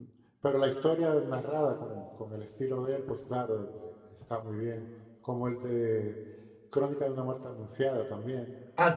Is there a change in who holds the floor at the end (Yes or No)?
Yes